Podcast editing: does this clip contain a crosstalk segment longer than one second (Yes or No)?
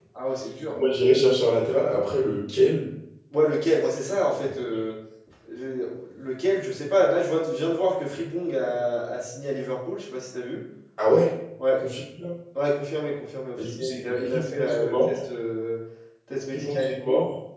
Yes